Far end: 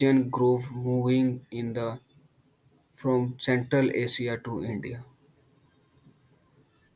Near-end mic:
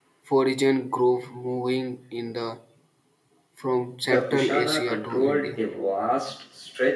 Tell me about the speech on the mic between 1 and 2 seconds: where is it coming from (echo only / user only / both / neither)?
echo only